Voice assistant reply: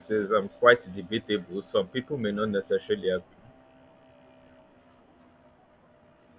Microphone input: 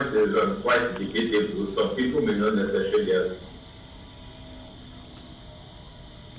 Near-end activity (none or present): none